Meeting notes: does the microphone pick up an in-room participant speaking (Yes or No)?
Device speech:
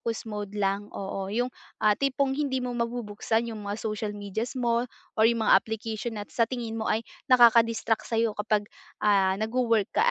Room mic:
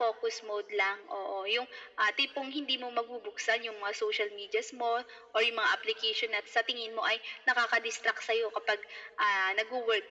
No